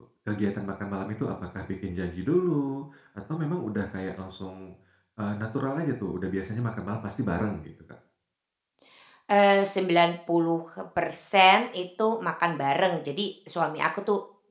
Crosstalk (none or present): none